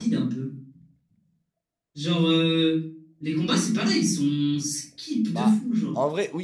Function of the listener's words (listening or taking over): taking over